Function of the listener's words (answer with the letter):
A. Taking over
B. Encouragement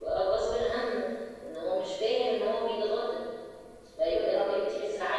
B